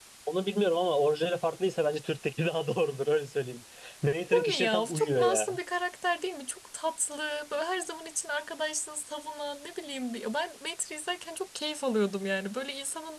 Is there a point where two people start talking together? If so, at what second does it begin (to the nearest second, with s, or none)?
4 s